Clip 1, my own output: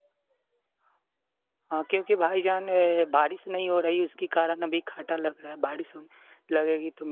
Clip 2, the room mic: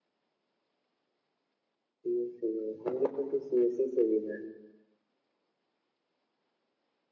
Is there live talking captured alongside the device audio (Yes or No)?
Yes